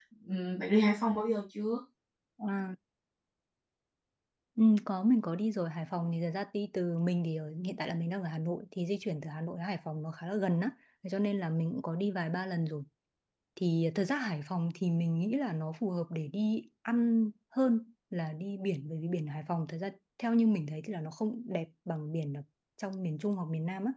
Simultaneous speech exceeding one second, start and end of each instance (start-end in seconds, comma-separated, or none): none